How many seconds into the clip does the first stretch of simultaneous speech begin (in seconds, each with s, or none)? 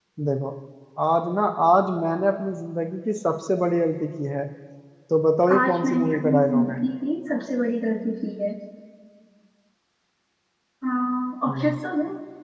5.5 s